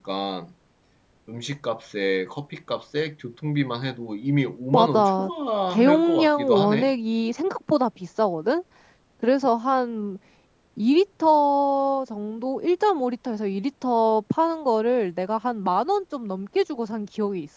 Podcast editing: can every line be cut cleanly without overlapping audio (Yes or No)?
No